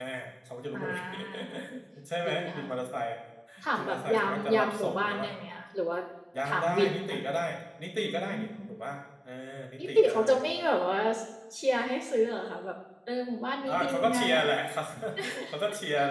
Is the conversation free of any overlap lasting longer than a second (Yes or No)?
No